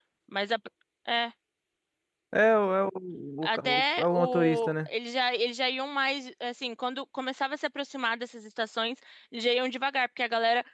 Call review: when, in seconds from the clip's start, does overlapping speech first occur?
3.5 s

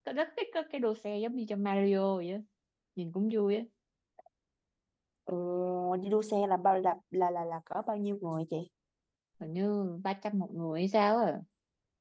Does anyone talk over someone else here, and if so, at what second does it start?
none

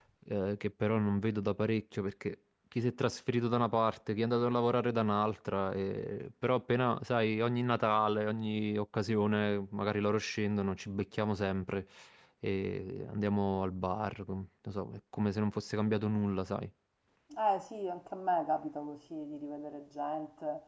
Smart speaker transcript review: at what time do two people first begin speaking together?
none

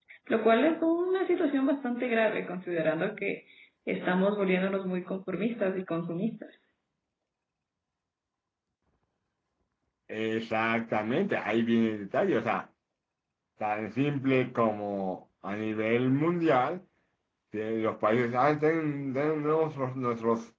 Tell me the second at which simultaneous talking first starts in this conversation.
none

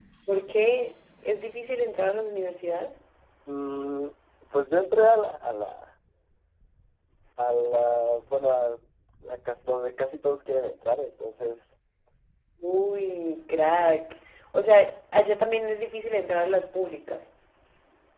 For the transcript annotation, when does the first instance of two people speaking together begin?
none

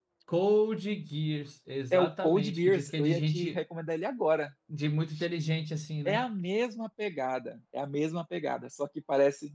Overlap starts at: 1.9 s

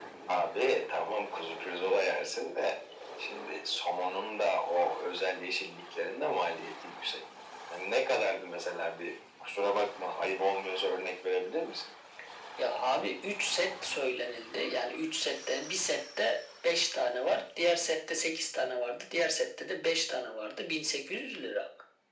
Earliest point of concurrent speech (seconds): none

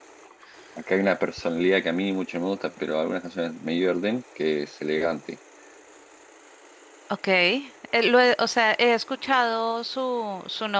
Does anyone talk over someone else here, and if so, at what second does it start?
none

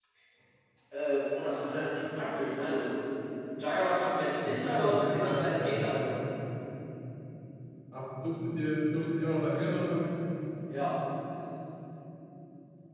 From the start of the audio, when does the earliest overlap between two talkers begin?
4.5 s

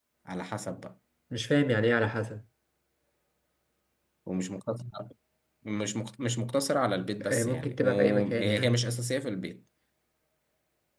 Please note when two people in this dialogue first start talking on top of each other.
7.2 s

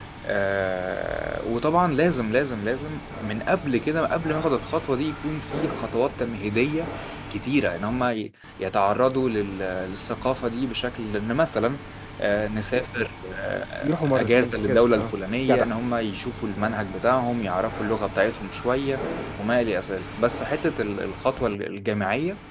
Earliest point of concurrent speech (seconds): 13.8 s

